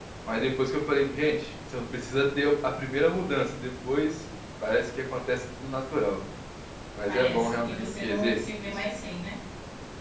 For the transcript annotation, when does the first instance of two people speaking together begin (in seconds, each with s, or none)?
7.1 s